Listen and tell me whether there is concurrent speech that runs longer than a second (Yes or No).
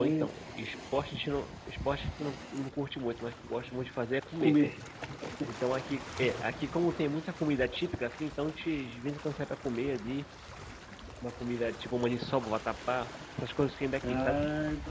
No